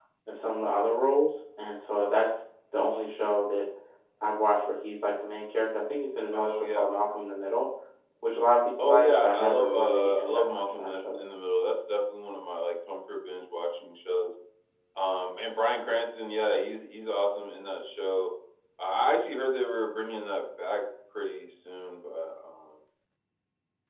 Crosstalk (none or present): present